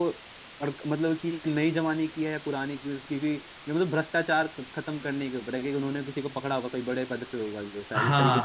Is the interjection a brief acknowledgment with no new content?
No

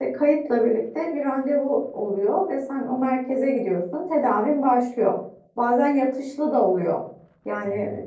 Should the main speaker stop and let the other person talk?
No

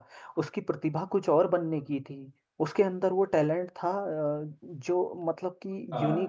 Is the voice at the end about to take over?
No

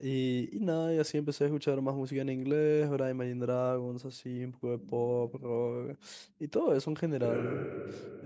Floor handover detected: No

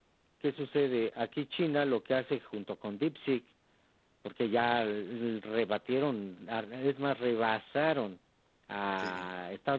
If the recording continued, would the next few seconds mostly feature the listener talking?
No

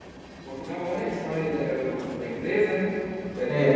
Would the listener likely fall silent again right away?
No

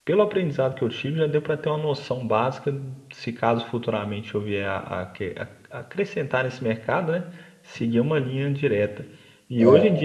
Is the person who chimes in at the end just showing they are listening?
Yes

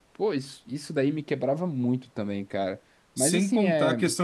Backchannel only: No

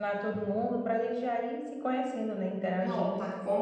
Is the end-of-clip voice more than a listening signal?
Yes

